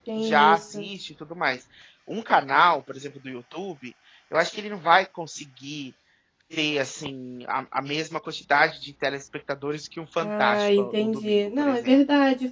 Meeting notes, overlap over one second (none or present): present